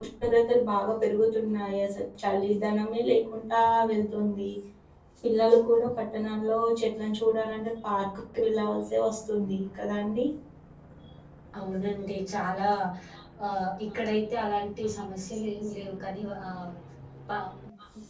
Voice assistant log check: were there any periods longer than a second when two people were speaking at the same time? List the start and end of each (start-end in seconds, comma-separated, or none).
none